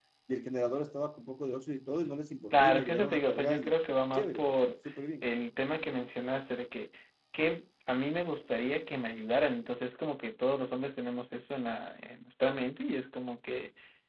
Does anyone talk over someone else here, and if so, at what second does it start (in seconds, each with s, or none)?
2.5 s